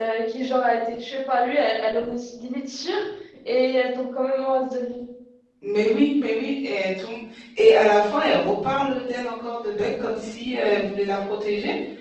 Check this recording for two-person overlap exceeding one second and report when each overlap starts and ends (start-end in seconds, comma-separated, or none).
none